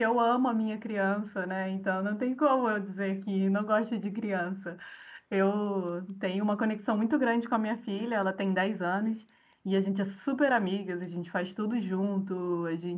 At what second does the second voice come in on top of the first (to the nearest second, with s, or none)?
none